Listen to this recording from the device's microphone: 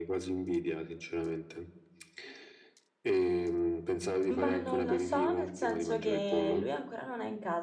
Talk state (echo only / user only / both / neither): both